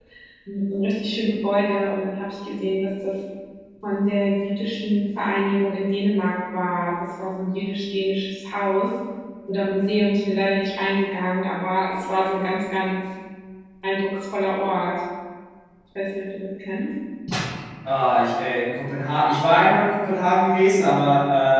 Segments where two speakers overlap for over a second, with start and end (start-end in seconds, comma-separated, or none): none